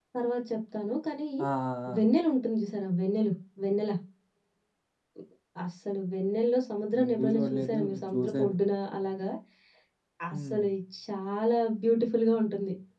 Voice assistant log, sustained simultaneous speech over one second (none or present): present